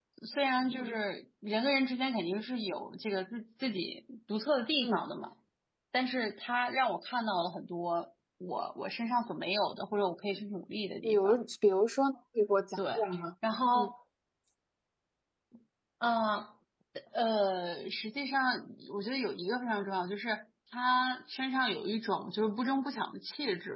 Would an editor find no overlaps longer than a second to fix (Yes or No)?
Yes